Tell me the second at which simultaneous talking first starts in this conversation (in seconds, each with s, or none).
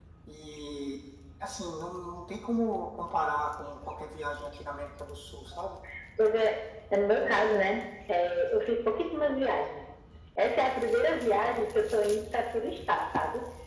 none